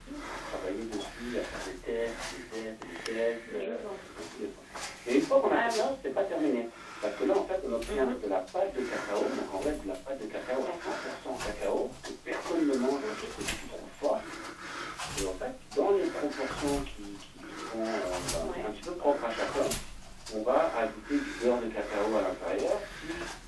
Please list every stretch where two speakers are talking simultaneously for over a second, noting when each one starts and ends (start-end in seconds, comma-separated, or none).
none